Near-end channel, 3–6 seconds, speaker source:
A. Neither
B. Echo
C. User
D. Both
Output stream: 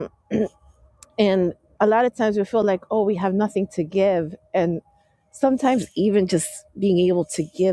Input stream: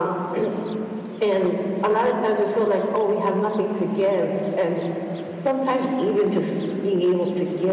B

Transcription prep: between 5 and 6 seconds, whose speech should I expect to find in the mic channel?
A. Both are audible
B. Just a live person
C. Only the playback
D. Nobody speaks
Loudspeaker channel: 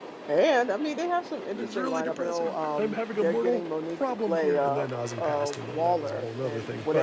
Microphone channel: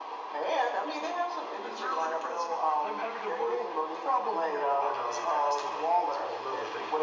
C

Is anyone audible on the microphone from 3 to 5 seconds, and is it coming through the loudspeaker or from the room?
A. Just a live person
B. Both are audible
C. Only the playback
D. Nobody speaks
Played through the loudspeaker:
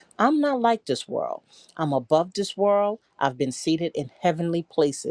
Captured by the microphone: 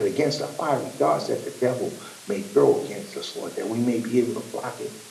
A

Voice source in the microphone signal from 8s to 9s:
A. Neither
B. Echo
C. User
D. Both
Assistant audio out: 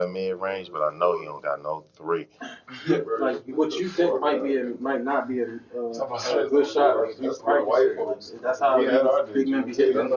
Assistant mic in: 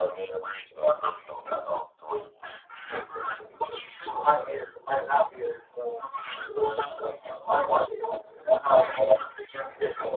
B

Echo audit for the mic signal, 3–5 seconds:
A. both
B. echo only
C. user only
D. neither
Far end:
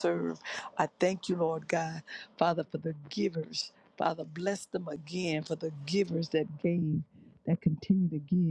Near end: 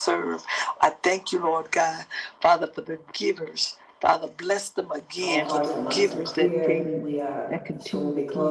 B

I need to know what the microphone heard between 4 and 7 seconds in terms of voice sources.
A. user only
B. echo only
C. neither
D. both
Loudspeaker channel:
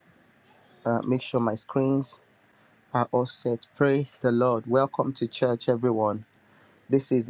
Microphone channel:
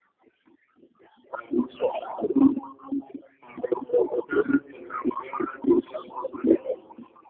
B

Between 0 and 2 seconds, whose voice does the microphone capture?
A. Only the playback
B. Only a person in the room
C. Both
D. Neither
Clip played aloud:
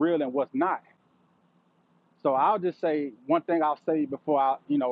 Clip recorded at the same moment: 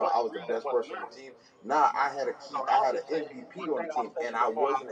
C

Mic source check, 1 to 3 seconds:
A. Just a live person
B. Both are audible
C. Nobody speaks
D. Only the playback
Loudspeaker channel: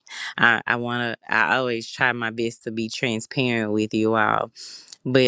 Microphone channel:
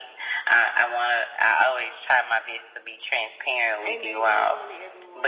D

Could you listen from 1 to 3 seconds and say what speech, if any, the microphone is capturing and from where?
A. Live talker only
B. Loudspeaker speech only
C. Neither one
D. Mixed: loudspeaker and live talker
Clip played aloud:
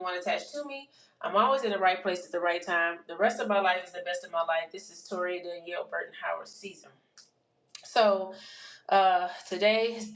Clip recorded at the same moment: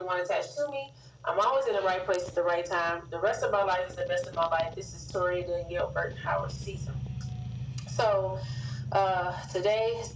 B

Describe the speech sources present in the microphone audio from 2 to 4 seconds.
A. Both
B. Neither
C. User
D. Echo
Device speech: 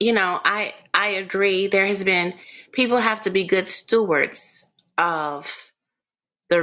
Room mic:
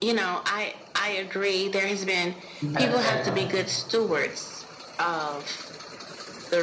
A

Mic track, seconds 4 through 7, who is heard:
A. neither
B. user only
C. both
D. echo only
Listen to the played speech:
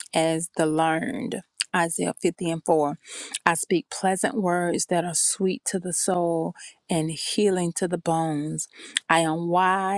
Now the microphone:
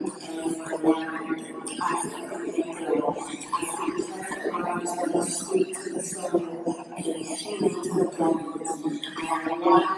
D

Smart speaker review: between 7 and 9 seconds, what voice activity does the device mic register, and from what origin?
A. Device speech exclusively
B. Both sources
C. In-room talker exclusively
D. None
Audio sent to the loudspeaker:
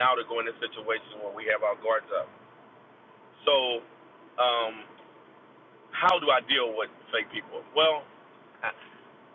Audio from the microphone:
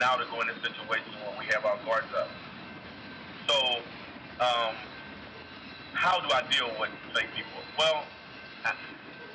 A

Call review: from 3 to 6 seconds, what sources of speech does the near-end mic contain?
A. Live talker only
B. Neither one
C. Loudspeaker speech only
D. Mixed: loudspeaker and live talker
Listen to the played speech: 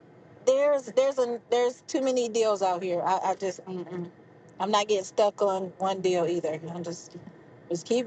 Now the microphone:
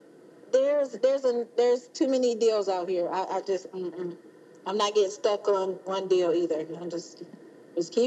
C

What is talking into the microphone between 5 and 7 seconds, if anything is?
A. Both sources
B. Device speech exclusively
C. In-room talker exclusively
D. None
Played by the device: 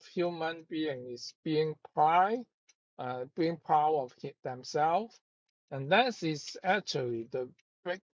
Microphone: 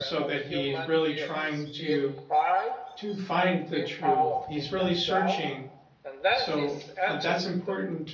A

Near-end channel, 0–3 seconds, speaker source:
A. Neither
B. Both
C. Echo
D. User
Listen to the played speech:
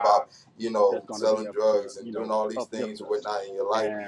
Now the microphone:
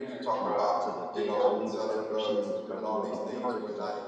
B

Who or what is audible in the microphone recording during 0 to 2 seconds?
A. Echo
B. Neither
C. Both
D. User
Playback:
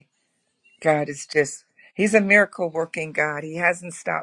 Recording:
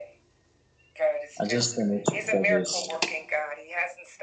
C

